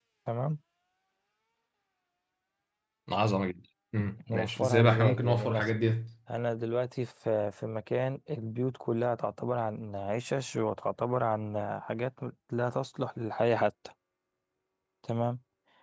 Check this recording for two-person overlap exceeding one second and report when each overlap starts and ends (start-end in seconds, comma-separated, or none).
4.3-5.8